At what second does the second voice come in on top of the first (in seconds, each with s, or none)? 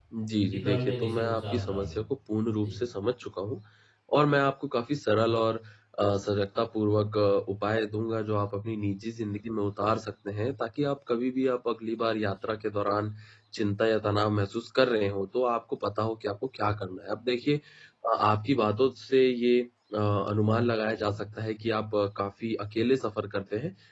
0.5 s